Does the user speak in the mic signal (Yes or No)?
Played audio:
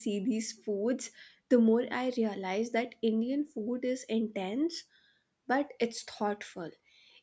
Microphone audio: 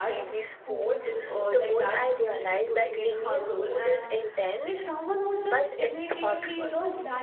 Yes